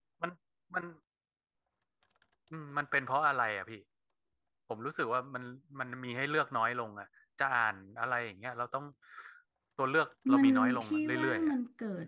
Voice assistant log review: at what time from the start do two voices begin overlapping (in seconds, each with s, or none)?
10.3 s